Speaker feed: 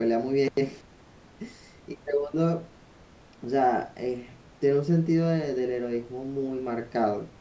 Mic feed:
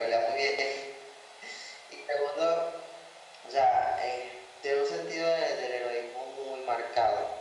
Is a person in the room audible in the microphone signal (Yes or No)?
No